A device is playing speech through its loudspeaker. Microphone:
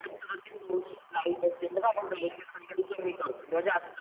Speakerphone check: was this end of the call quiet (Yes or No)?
Yes